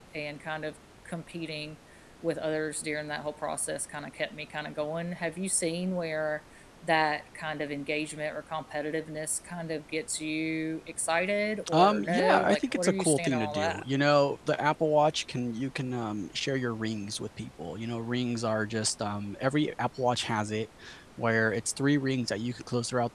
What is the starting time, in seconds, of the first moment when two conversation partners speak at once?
12 s

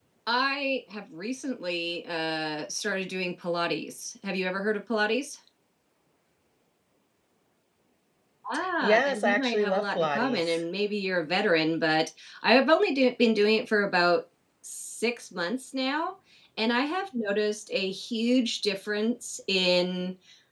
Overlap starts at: 9 s

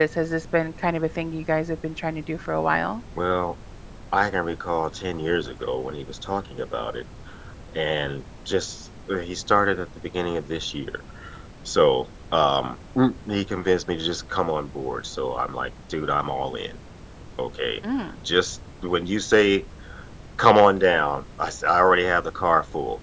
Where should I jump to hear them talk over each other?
none

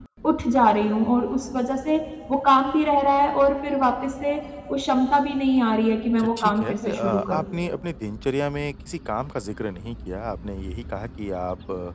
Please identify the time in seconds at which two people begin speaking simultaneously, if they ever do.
6 s

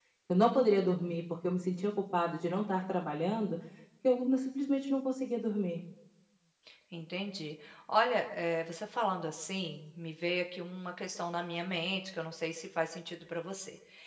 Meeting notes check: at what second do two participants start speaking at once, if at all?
none

